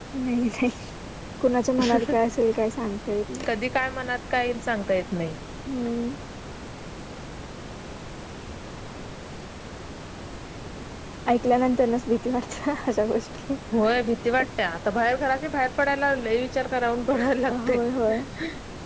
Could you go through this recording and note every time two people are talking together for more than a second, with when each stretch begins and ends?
none

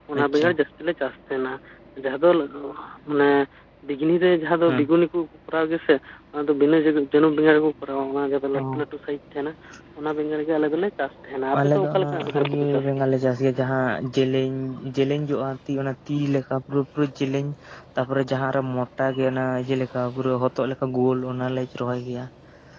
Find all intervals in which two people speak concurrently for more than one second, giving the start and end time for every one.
11.6-13.1

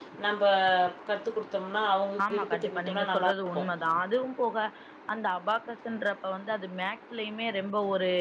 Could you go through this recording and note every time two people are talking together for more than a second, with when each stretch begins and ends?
2.3-3.7

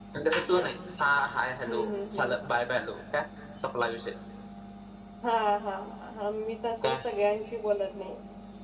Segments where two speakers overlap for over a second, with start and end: none

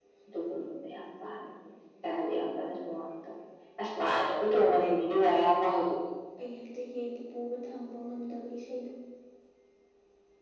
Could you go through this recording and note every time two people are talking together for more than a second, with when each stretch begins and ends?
none

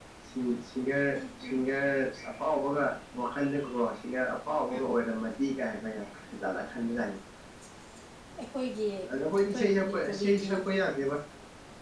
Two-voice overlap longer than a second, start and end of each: 9.1-10.5

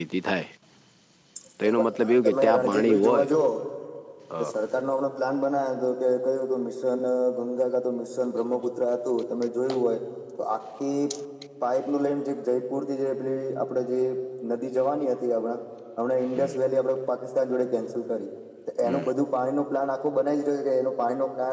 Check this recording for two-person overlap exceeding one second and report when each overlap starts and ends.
1.7-3.3

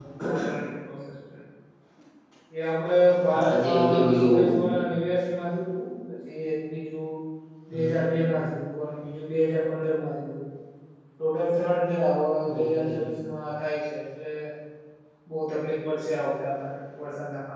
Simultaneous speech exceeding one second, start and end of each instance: 3.3-4.6

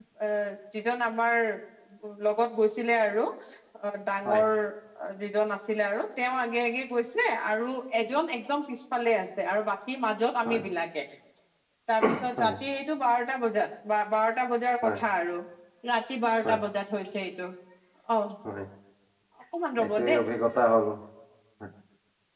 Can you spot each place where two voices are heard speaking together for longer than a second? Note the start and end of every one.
none

